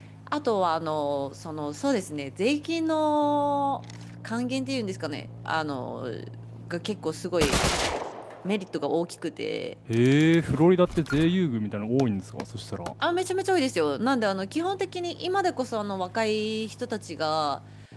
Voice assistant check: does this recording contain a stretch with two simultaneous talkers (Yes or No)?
No